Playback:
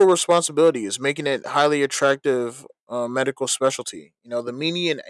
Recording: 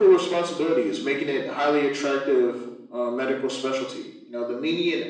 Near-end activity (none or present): none